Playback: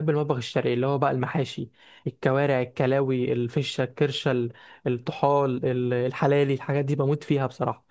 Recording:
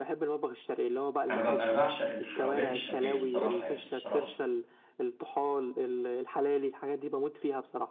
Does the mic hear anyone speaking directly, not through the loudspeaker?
Yes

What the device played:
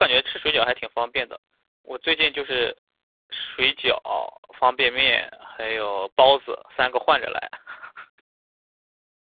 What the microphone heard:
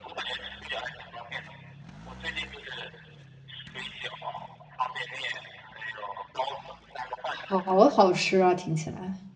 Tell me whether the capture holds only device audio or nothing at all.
No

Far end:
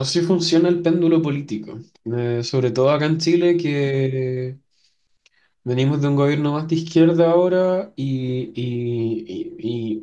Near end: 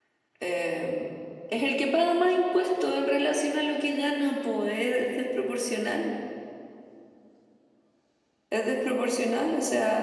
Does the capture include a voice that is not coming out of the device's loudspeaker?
Yes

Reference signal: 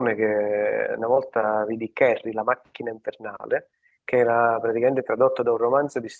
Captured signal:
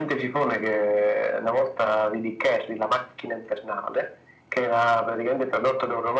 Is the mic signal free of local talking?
Yes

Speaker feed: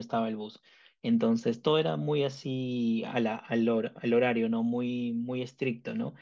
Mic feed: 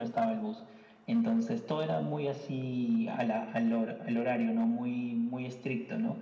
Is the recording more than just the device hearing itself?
No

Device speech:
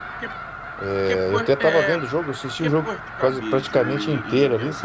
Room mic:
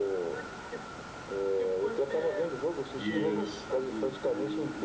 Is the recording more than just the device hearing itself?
Yes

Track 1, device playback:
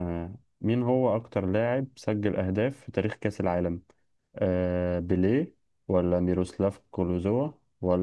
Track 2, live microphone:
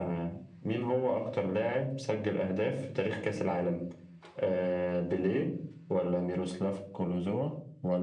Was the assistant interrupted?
No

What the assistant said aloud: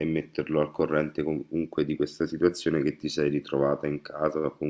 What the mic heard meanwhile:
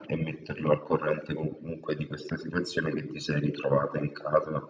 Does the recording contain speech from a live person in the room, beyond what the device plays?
No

